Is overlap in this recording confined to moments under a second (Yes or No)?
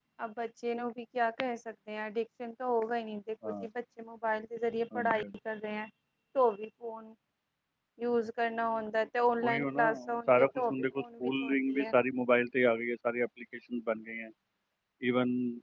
No